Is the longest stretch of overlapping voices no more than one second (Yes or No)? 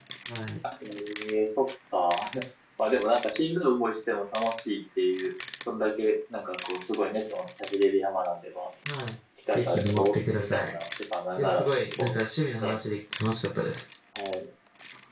No